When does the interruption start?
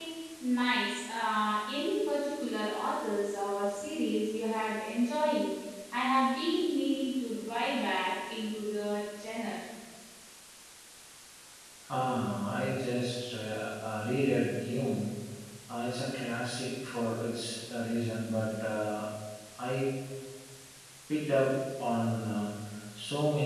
none

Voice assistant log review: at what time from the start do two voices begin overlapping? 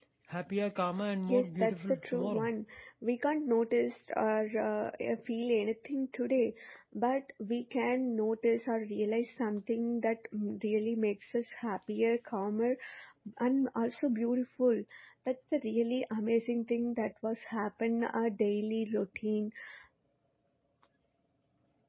1.3 s

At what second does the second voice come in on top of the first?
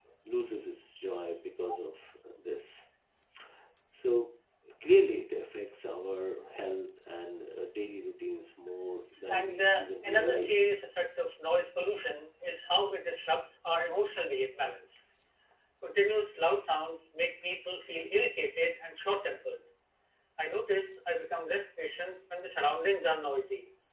9.3 s

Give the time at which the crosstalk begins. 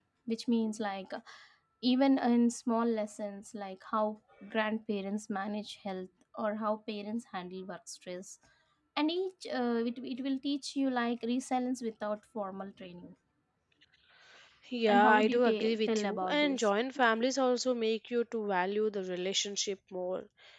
14.9 s

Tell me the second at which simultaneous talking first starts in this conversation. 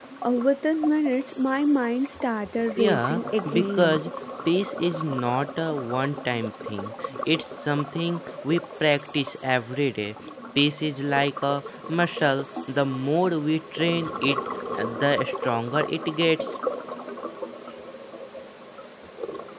2.8 s

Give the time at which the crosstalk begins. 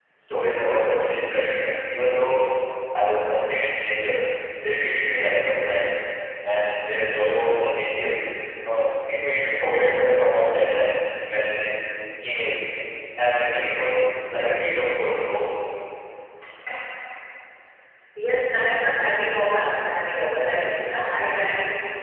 none

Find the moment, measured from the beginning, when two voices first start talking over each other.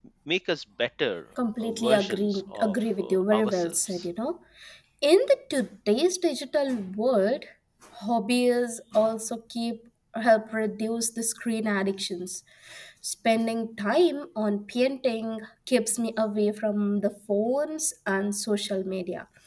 1.6 s

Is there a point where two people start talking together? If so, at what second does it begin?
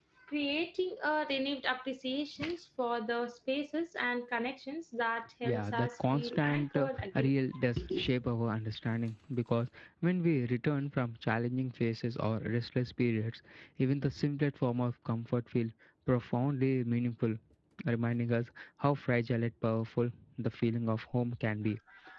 5.4 s

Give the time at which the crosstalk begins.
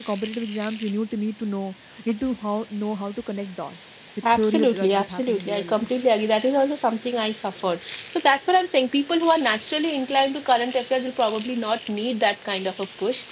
4.2 s

